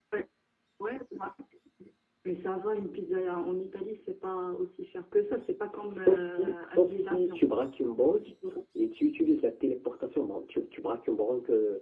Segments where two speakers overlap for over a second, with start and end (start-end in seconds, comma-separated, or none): 5.9-7.4